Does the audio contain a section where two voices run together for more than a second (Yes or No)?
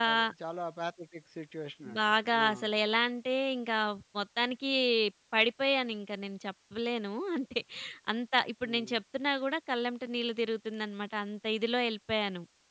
No